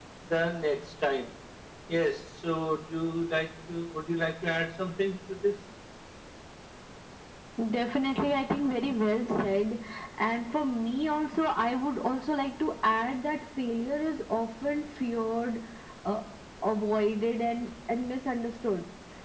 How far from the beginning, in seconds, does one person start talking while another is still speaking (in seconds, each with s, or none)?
none